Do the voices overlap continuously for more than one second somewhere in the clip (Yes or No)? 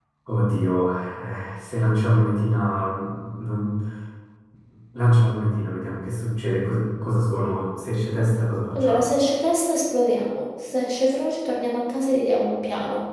No